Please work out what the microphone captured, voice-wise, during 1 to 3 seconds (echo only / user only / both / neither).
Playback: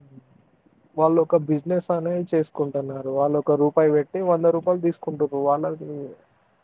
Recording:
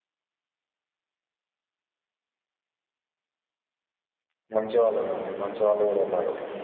neither